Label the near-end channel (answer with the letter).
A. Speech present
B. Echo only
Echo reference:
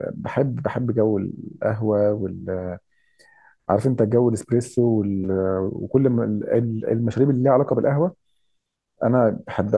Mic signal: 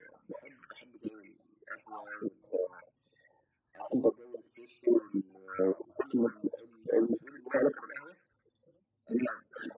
B